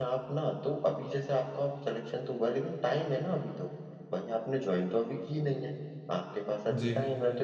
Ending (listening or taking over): listening